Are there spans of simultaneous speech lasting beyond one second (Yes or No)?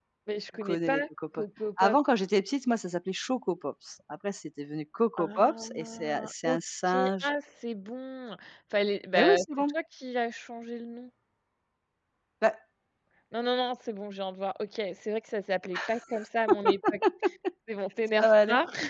Yes